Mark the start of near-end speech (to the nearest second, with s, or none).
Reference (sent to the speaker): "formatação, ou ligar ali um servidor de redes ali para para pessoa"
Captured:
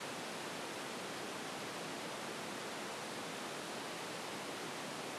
none